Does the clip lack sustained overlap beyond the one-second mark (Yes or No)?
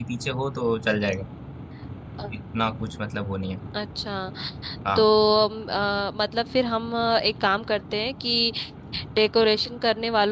Yes